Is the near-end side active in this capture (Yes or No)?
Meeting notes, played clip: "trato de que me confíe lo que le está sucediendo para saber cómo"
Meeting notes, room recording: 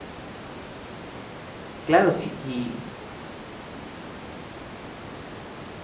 Yes